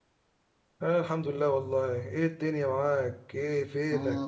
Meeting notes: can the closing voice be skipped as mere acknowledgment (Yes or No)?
No